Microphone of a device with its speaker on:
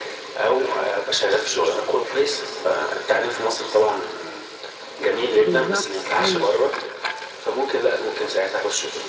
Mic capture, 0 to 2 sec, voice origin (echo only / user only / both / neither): echo only